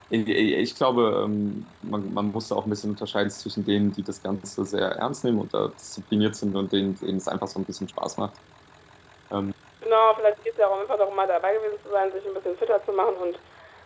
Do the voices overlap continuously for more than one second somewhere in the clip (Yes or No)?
No